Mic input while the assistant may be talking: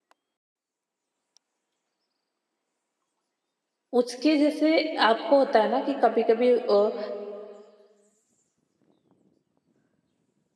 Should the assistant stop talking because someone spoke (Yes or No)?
Yes